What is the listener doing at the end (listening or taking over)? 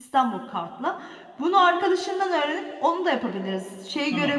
listening